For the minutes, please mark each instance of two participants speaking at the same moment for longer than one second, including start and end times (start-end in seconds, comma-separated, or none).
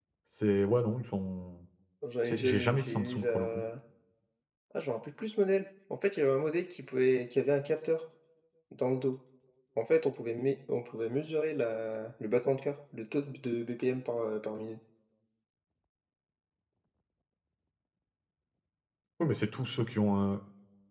2.3-3.5